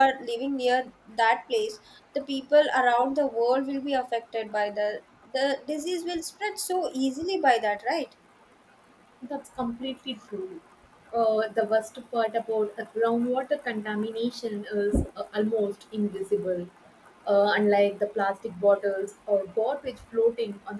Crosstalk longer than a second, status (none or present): none